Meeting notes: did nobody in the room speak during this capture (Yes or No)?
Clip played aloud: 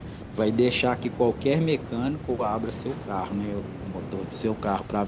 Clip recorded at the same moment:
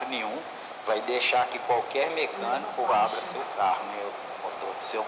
No